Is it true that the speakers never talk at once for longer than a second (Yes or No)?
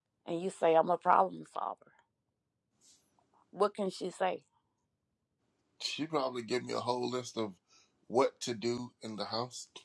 Yes